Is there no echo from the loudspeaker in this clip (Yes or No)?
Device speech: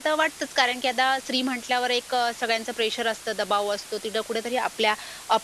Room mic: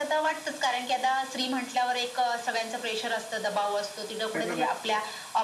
No